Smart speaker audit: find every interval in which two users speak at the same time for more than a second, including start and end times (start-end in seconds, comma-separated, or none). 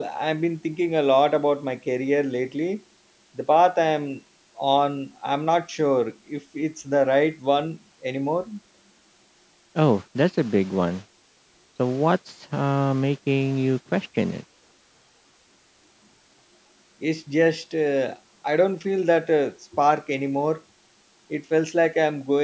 none